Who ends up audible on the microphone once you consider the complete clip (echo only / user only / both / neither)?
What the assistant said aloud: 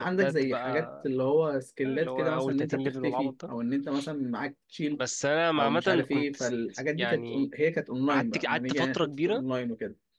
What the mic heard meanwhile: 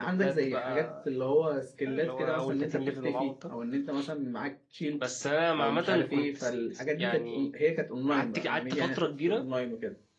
echo only